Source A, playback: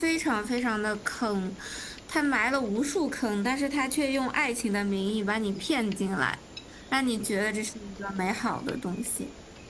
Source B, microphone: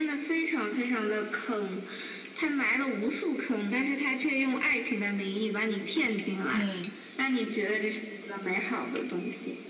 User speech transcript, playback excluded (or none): 嗯